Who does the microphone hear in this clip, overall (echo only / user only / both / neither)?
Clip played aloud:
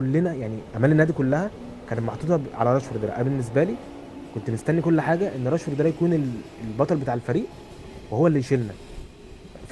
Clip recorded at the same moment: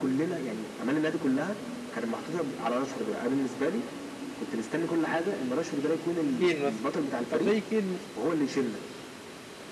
both